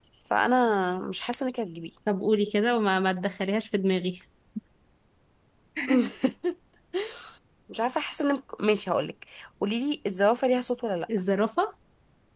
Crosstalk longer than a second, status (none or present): none